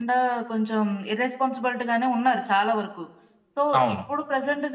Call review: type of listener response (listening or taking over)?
listening